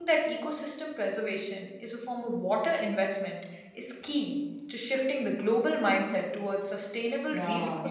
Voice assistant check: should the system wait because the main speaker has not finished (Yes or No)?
No